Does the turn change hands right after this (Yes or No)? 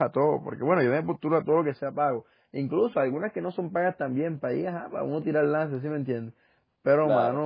No